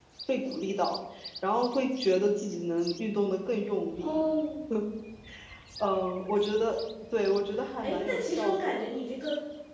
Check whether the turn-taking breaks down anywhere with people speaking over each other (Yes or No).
Yes